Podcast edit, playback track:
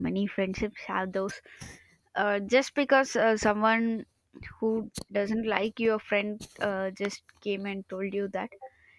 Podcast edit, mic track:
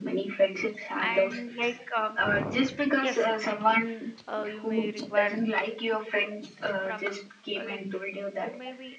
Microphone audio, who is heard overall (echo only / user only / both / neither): both